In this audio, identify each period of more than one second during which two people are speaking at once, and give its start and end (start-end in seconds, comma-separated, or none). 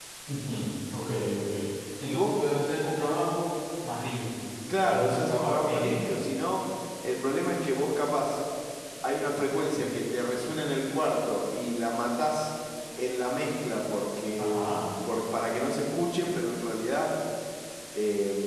4.8-6.2